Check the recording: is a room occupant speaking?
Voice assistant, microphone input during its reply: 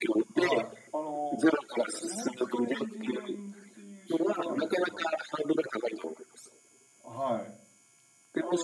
Yes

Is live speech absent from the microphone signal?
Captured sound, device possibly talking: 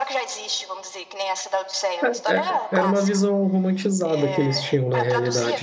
No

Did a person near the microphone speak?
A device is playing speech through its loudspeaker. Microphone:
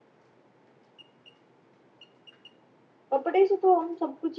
Yes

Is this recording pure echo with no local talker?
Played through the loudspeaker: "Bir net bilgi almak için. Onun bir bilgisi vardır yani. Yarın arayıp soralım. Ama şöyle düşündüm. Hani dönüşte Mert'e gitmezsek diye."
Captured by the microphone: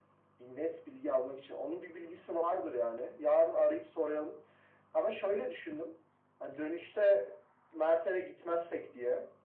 Yes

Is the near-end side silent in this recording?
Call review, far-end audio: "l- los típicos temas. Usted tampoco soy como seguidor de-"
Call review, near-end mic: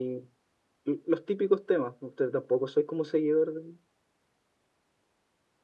Yes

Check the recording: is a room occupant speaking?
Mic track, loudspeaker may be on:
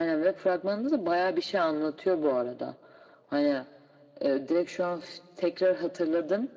No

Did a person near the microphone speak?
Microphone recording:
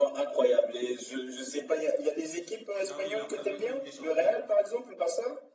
Yes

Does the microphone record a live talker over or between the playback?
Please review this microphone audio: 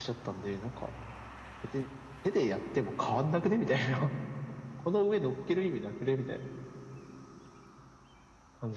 No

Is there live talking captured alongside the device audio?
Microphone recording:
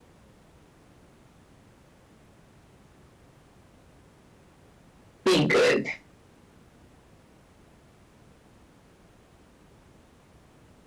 Yes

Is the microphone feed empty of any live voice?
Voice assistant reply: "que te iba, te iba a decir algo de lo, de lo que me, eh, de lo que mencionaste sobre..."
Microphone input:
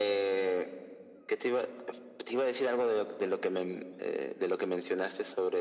Yes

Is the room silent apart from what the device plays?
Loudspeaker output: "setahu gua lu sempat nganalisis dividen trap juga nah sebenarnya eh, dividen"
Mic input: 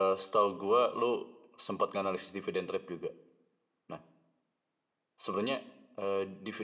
Yes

